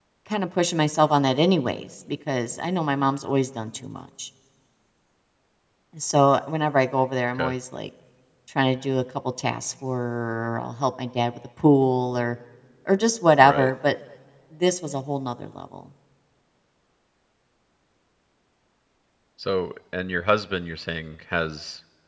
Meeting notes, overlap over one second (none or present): none